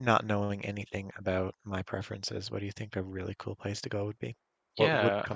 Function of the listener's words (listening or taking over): taking over